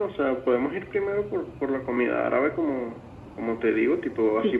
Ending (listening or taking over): listening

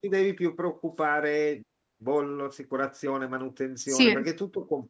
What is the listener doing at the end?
listening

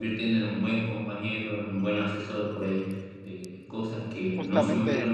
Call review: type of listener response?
listening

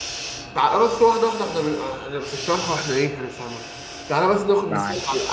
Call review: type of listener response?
listening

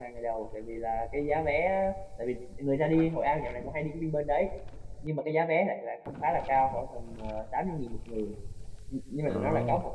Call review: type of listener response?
listening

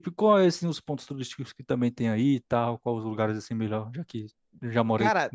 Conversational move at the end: taking over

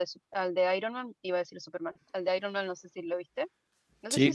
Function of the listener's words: taking over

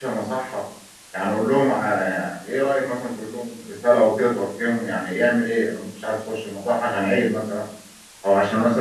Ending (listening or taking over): listening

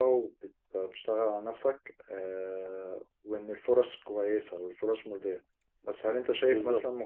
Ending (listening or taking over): listening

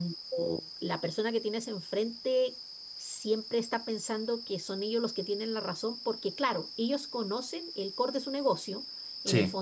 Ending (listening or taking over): listening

